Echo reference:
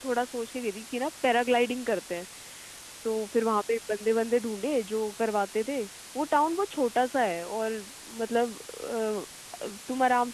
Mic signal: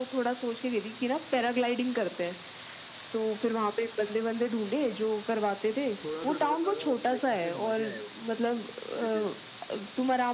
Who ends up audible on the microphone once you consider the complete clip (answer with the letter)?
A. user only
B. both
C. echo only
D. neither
B